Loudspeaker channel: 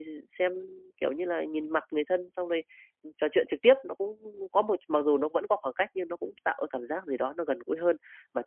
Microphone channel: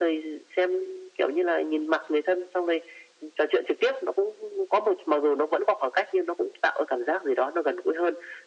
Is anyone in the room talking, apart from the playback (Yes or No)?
No